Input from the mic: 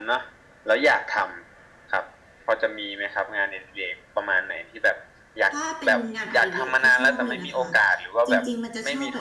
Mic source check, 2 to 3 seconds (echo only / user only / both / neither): echo only